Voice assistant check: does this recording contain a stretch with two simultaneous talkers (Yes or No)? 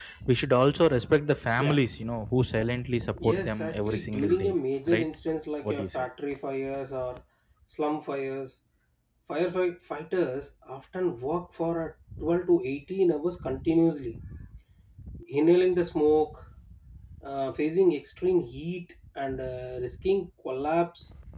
Yes